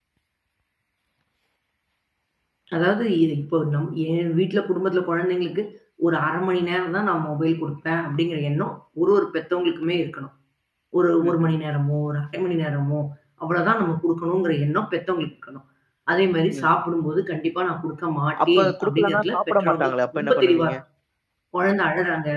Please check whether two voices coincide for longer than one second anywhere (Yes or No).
Yes